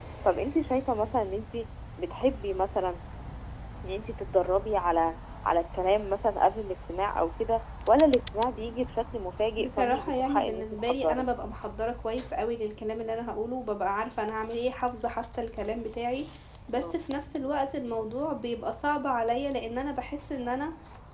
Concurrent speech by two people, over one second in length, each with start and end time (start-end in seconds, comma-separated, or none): 9.6-11.2